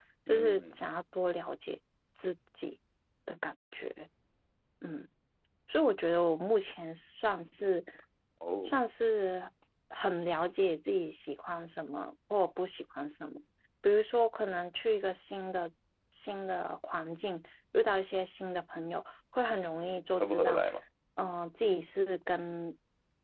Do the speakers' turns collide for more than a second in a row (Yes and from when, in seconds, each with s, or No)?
No